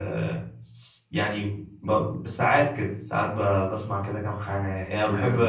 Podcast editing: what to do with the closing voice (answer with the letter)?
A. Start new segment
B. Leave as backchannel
B